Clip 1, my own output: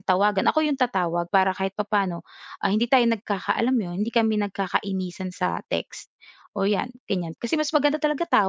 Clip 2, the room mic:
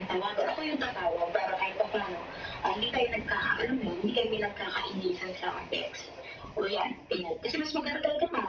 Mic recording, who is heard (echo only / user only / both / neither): echo only